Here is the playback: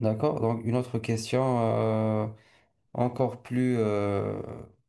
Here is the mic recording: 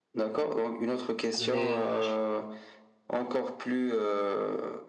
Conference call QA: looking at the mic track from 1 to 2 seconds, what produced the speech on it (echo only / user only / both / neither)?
both